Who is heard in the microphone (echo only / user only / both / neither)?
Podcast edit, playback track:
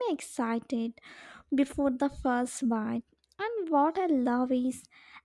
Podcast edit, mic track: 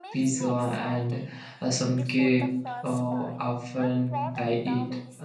both